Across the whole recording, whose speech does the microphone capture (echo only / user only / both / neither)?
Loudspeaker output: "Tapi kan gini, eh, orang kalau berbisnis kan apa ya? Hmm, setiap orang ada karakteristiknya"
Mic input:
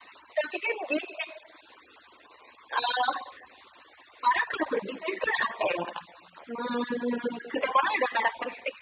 echo only